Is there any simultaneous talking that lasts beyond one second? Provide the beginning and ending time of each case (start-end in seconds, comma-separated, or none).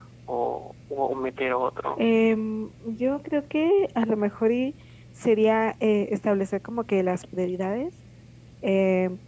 none